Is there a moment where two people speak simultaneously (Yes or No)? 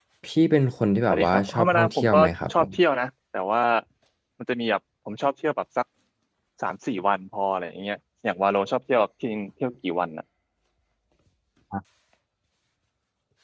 Yes